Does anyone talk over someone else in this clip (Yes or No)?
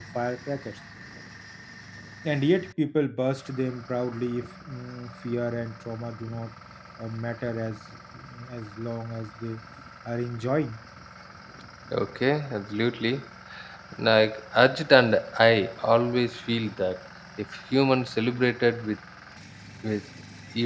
No